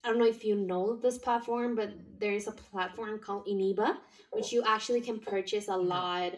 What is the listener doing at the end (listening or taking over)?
listening